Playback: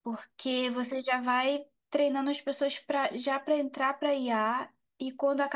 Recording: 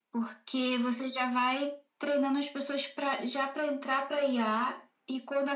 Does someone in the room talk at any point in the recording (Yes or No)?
No